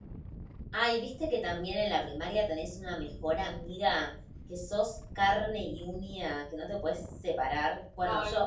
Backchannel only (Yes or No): Yes